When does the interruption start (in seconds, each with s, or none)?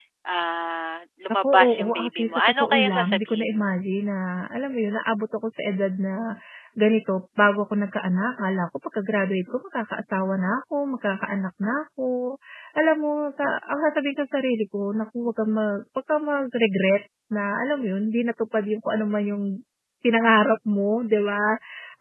1.3 s